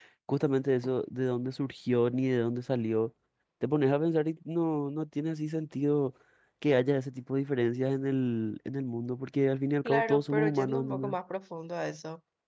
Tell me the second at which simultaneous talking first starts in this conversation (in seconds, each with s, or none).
9.8 s